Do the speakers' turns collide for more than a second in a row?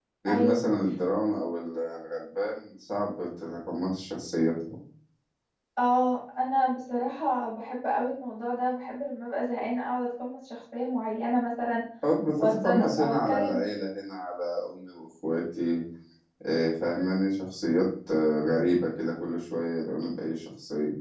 Yes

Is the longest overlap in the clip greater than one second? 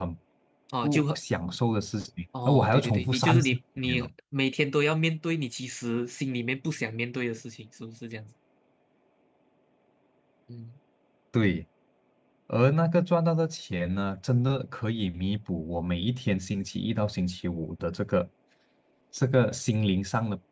Yes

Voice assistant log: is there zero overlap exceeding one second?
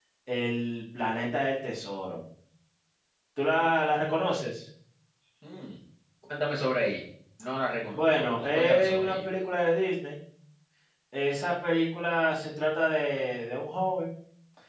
No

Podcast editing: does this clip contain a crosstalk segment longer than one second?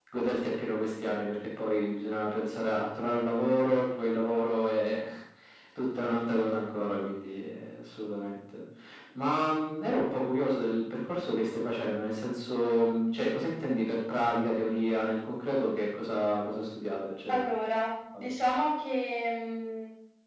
No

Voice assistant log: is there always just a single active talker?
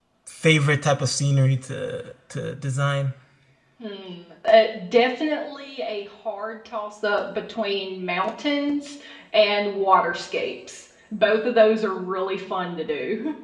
Yes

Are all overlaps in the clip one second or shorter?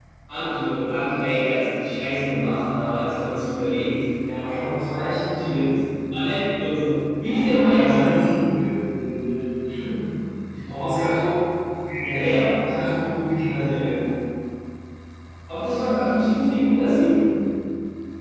Yes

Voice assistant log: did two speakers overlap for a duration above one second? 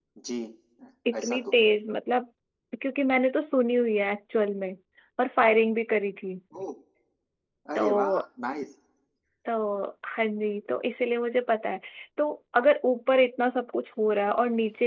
No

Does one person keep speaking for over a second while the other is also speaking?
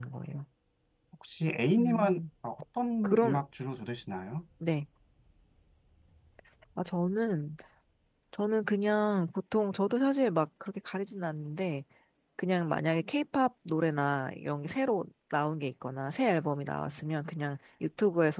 No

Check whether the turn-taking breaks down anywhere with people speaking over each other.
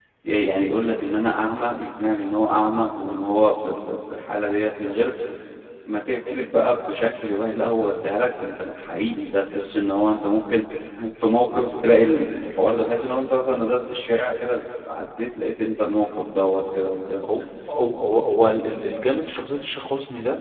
No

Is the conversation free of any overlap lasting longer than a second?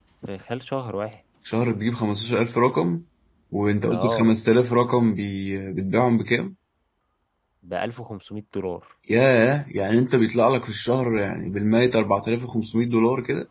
Yes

